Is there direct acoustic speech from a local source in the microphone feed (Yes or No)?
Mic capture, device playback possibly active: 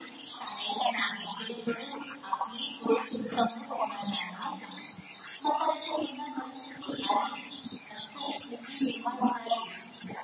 No